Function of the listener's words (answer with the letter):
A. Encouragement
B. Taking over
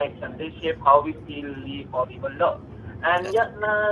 A